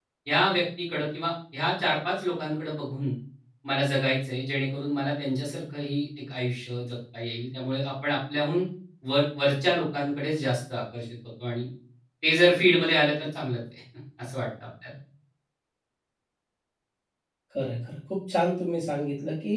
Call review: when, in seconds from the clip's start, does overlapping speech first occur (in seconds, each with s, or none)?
none